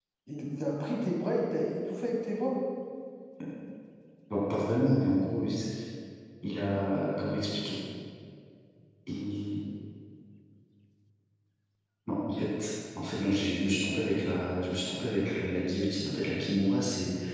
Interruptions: none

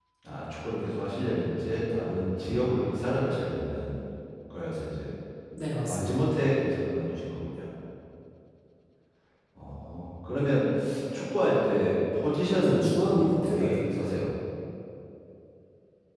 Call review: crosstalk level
present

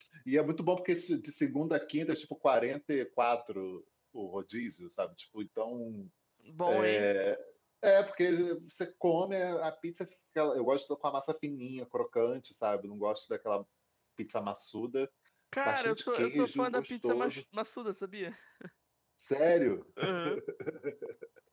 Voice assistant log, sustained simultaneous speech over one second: present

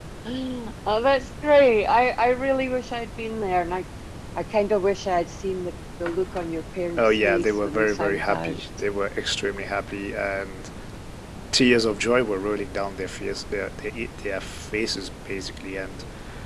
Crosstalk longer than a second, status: present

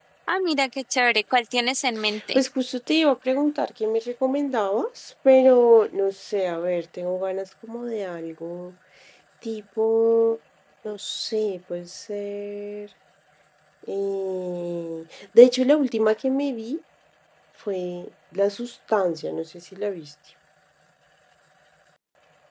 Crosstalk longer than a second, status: none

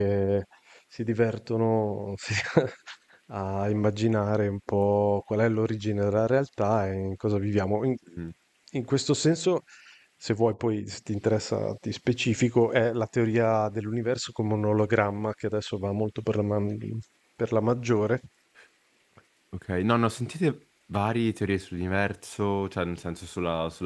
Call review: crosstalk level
none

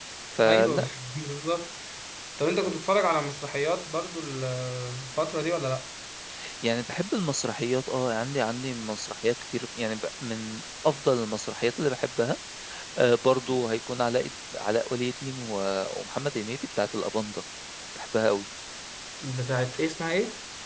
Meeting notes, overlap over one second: none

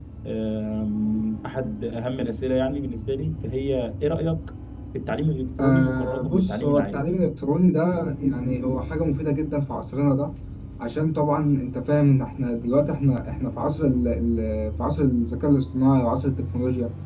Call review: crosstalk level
present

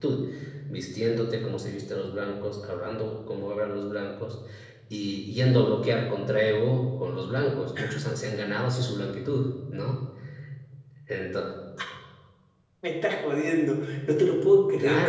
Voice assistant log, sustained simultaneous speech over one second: none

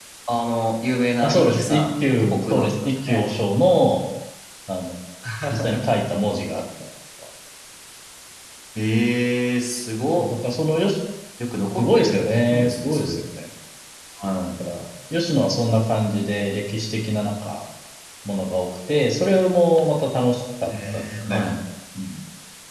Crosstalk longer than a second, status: present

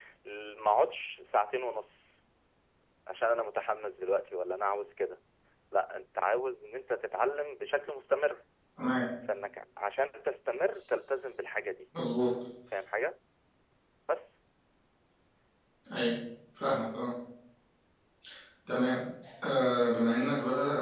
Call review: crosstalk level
none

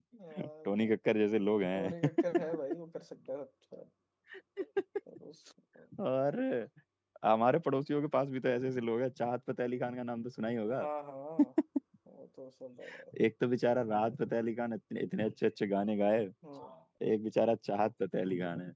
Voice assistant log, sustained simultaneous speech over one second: none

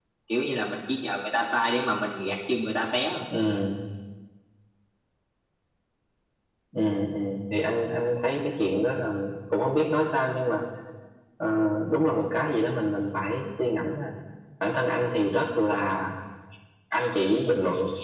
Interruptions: none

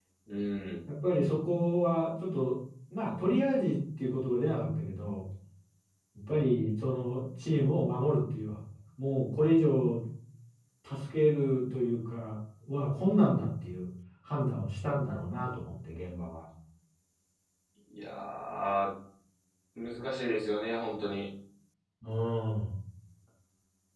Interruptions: none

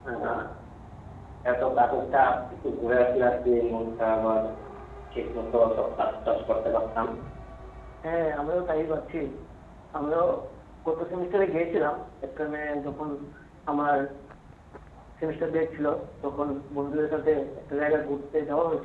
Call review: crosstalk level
none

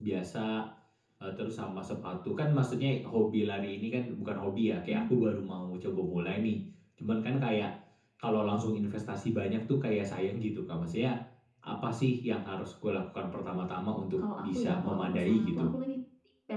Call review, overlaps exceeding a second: present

